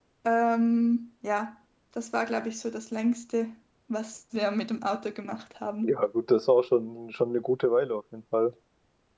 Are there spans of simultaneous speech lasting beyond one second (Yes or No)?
No